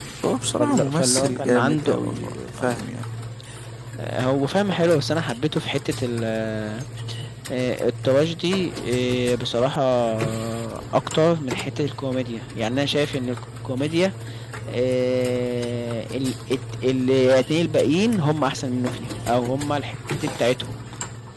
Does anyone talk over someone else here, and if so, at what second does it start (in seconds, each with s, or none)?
0.5 s